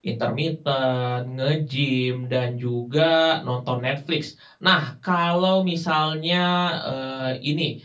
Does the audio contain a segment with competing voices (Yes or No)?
No